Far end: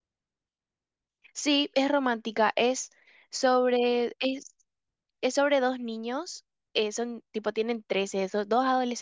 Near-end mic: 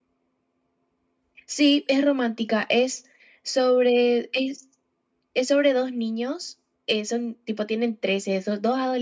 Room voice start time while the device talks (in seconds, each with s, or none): none